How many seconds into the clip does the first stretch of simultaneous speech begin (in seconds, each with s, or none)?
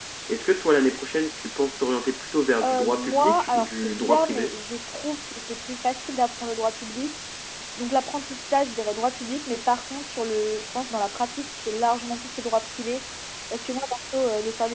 2.6 s